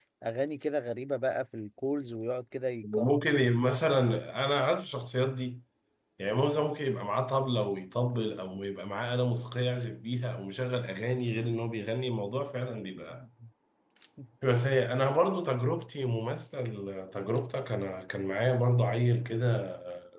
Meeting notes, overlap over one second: none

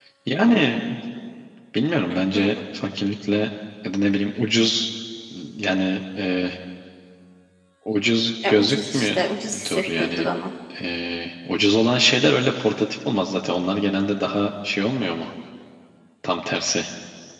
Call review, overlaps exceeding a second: present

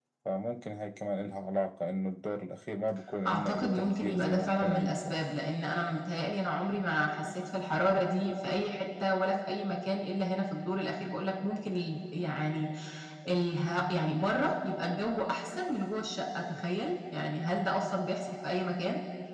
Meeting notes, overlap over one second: present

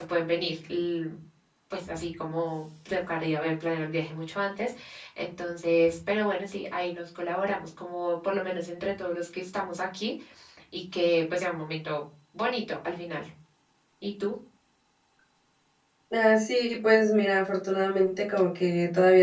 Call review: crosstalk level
none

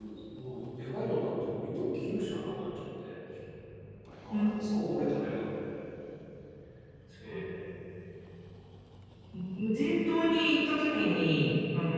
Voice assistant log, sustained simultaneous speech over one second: none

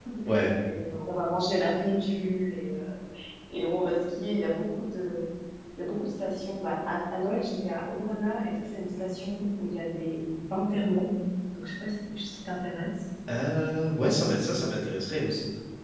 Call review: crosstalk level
none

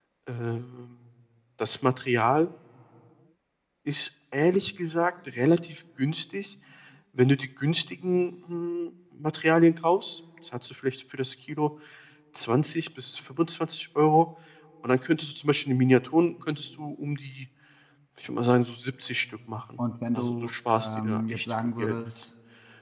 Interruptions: present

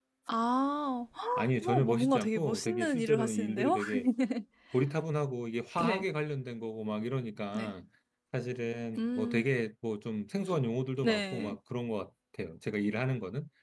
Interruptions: present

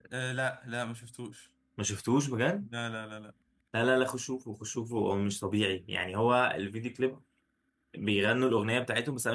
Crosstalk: none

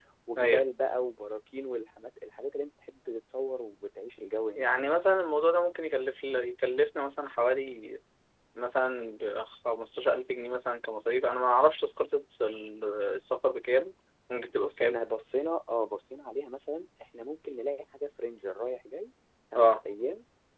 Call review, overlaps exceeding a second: none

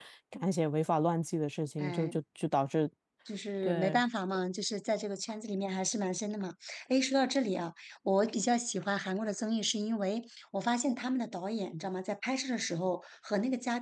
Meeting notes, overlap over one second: none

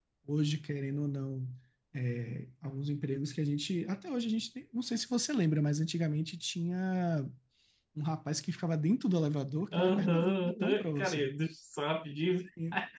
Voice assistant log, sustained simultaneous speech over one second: present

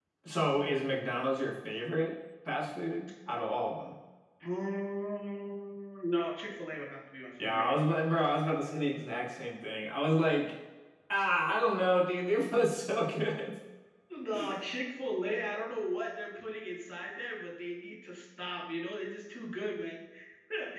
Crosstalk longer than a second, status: none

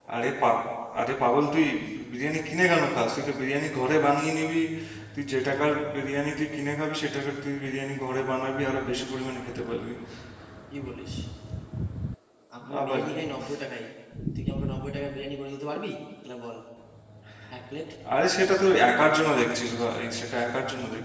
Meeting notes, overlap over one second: none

